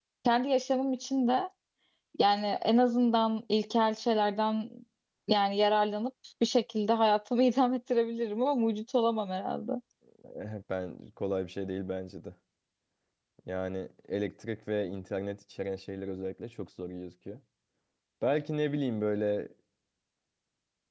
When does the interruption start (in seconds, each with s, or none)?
none